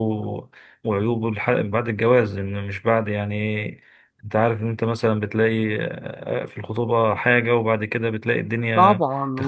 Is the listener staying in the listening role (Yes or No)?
No